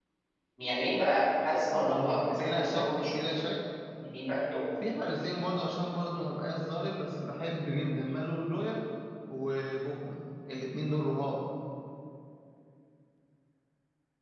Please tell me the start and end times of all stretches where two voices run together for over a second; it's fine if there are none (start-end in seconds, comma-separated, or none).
1.7-3.1